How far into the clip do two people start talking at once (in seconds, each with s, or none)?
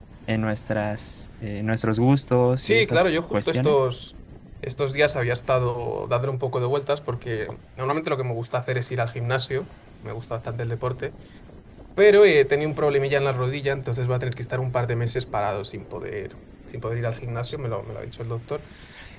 2.6 s